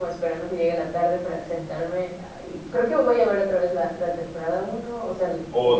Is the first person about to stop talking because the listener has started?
Yes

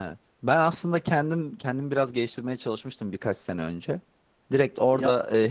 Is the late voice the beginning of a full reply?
No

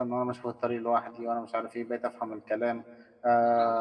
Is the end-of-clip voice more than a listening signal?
Yes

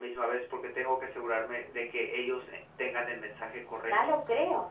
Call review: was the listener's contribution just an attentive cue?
No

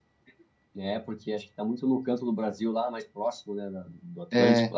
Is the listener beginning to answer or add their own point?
No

